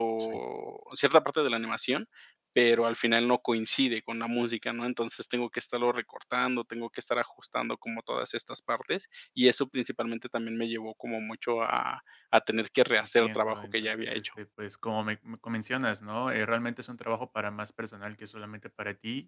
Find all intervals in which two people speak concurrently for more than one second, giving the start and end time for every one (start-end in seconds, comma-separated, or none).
12.9-14.3